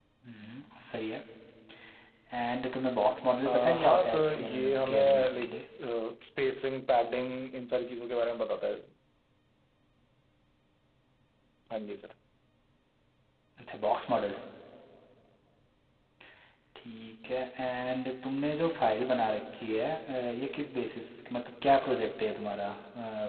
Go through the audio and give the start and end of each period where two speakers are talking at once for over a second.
3.5-5.6

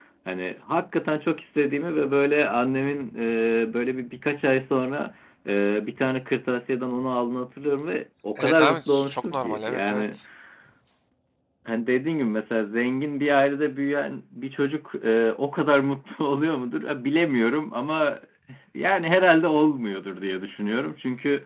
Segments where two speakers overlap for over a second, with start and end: 8.4-10.2

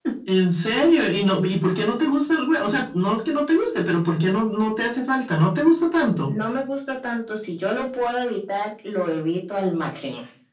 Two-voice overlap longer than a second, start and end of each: none

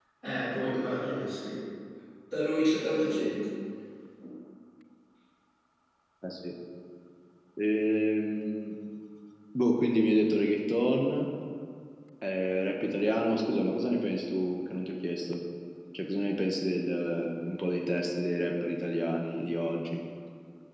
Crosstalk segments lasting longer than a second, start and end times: none

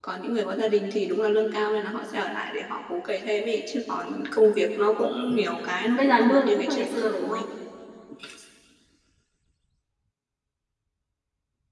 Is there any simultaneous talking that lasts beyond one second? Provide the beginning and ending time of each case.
5.9-7.4

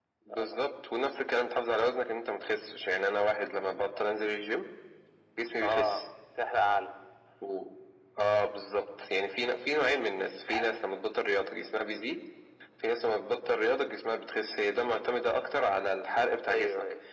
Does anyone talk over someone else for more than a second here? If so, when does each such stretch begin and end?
none

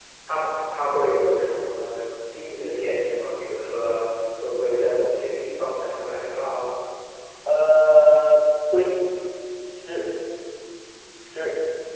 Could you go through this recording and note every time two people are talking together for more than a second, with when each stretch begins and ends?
none

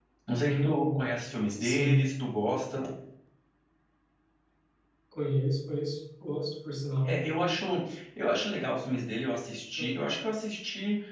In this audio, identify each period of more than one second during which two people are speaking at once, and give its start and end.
none

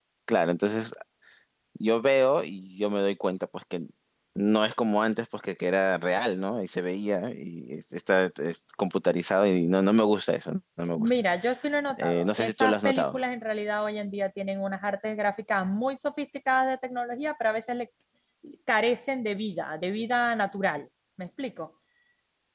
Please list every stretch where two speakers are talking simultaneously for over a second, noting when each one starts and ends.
12.0-13.2

